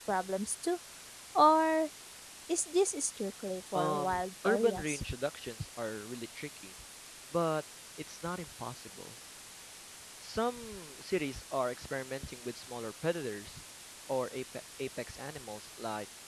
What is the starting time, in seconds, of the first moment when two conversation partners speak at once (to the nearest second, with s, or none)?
4 s